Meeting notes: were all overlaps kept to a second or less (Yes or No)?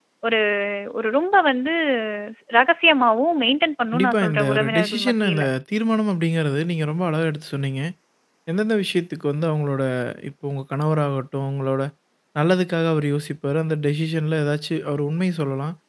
No